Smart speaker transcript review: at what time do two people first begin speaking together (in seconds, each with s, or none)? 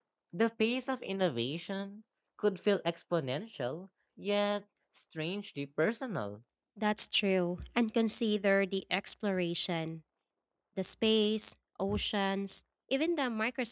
none